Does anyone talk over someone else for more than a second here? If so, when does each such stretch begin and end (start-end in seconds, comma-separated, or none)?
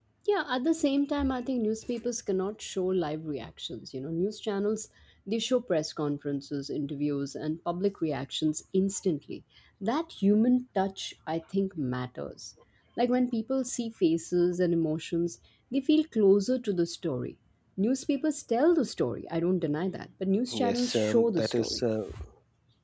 20.5-21.8